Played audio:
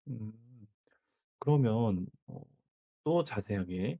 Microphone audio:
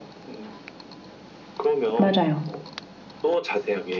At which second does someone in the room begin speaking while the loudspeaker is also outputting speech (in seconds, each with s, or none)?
2.0 s